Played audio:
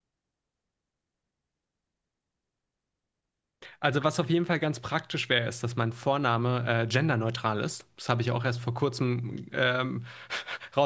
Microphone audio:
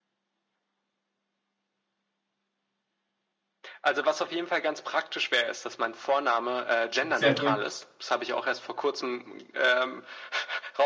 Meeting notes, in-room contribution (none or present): present